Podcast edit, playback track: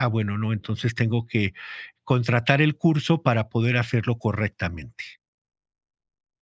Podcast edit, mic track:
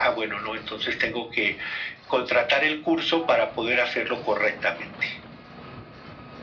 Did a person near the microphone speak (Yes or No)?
No